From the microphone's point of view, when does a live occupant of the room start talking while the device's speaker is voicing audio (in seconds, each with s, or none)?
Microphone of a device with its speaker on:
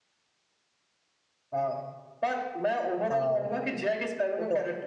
3.1 s